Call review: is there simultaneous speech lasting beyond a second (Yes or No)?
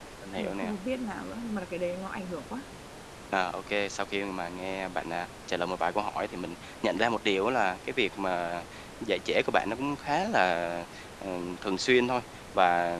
No